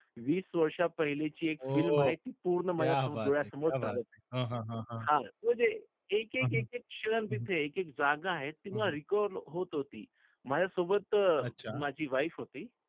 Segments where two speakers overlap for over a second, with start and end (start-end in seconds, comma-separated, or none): 2.8-4.0